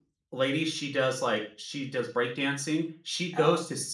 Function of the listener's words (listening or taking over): listening